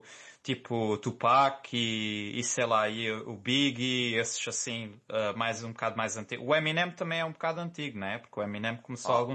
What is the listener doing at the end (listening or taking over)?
listening